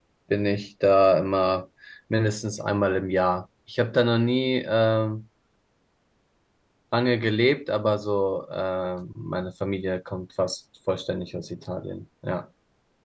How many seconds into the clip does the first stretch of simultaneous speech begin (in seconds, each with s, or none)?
none